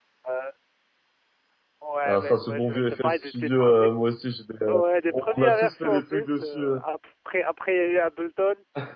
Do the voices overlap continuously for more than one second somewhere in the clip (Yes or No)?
Yes